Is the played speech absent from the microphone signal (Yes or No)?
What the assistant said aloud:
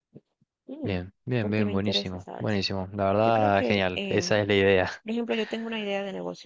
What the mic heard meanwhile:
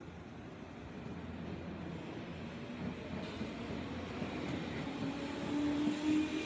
Yes